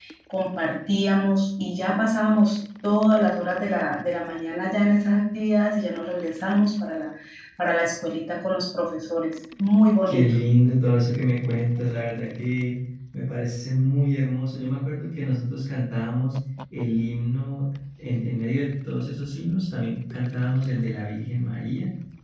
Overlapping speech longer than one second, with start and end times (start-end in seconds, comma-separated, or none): none